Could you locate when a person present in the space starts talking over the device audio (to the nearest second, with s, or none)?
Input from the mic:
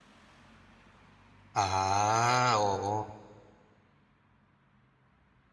2 s